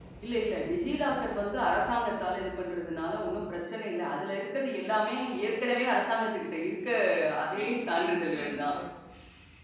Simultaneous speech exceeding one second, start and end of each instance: 7.5-8.7

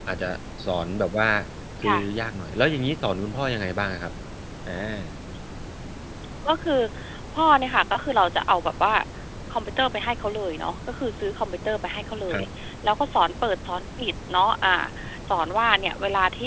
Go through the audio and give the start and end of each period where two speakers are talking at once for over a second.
none

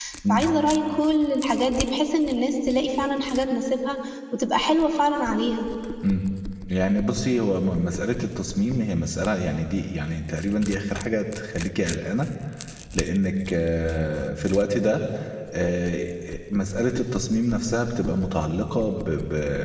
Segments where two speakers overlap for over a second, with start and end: none

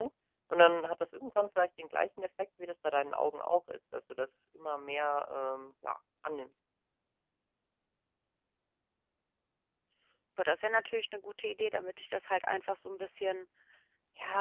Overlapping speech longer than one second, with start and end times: none

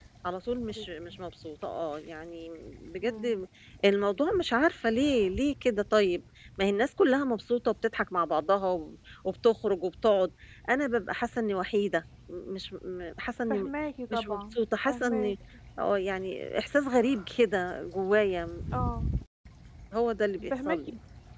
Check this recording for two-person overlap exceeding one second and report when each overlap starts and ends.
14.1-15.3

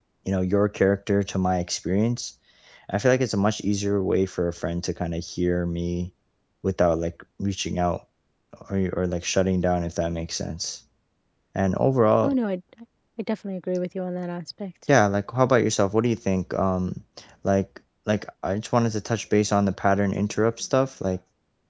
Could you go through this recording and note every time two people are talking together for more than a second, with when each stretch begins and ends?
none

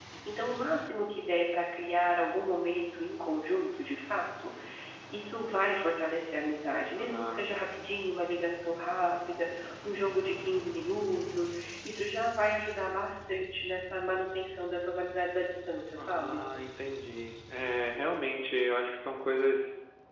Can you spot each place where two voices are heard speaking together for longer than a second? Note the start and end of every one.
none

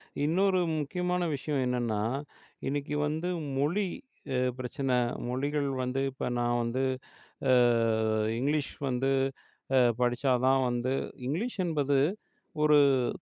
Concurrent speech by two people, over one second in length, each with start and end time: none

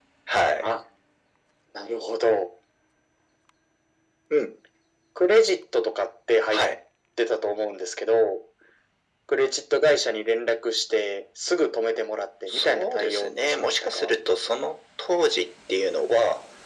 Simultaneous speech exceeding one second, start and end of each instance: 12.5-14.2

